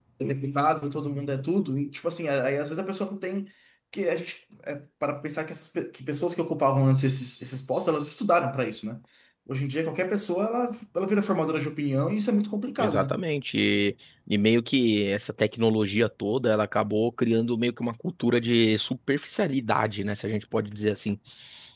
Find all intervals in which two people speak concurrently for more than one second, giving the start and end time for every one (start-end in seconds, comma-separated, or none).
none